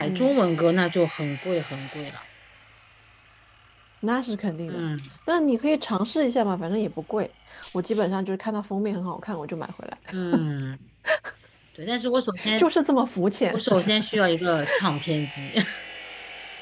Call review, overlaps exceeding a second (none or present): none